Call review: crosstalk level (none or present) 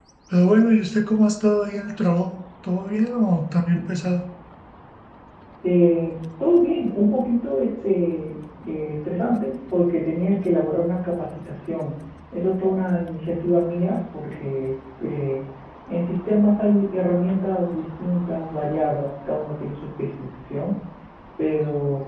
none